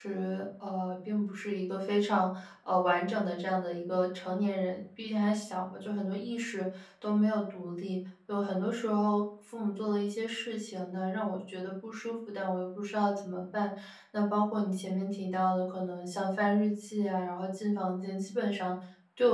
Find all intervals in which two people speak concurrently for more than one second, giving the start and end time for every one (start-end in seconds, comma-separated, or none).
none